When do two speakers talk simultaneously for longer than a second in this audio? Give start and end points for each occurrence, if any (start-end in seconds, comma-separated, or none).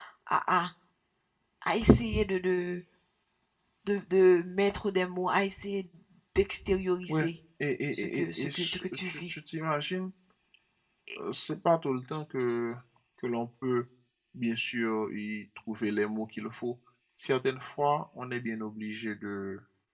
7.9-9.3